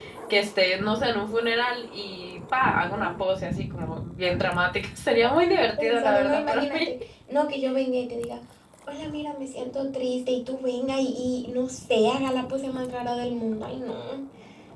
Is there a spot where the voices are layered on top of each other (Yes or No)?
Yes